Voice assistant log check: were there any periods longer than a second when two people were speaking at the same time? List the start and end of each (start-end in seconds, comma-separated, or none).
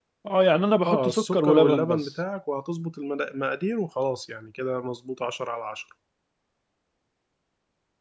0.8-2.1